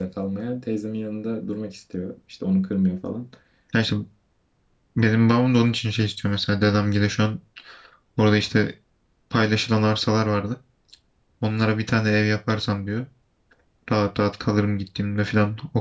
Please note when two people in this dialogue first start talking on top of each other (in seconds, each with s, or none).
none